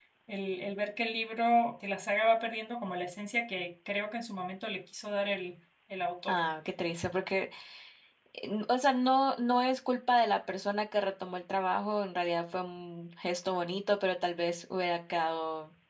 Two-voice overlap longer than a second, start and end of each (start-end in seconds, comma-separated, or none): none